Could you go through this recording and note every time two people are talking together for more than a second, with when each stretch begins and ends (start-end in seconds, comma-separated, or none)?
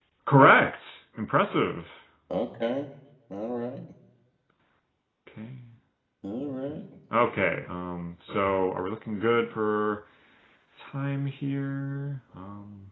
none